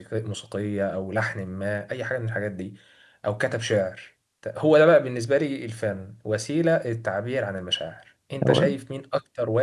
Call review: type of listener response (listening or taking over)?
listening